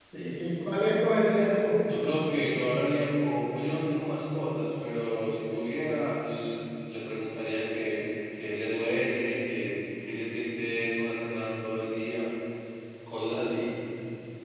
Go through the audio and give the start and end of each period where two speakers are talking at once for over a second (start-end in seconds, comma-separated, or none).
none